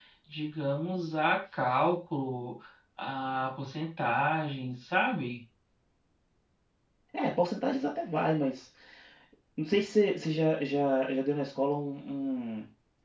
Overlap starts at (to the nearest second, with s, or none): none